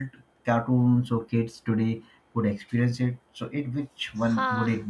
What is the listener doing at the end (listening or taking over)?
taking over